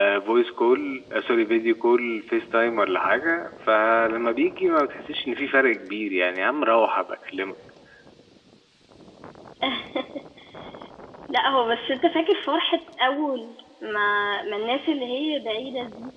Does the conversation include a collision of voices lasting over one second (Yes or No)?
No